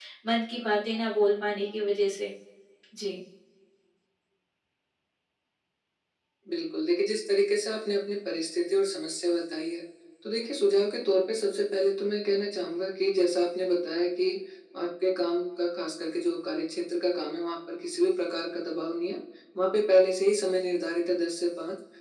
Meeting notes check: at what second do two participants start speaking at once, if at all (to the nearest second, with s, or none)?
none